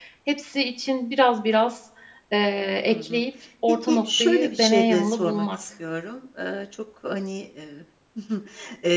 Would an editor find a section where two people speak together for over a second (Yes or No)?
Yes